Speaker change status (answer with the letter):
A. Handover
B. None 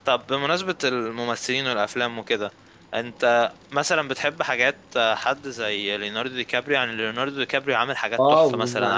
A